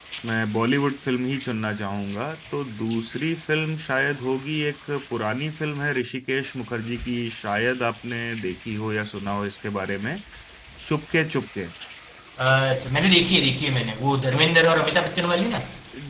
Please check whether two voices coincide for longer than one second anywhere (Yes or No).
No